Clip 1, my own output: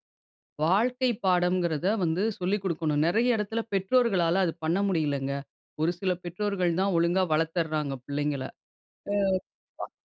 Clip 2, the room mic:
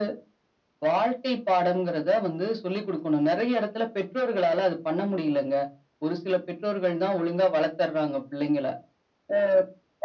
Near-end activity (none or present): none